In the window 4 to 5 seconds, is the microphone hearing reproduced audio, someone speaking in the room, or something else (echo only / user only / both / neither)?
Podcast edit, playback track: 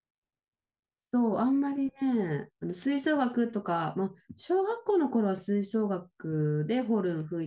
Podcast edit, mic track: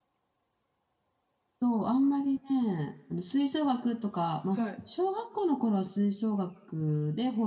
both